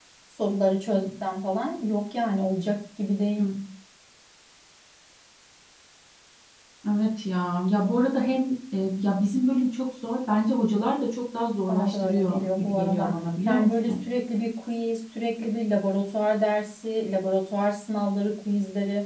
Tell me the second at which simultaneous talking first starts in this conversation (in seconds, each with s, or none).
11.7 s